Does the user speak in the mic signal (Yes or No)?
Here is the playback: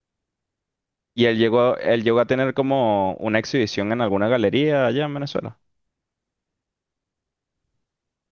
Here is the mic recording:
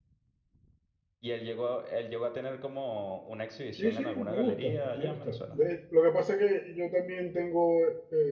Yes